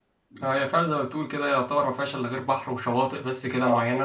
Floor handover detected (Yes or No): Yes